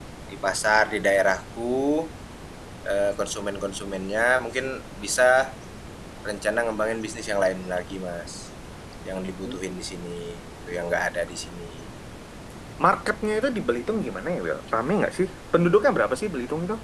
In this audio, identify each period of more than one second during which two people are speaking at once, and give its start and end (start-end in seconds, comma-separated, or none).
none